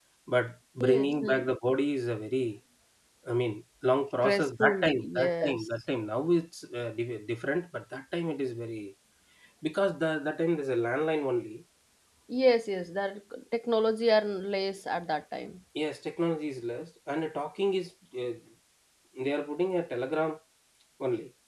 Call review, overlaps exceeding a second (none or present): present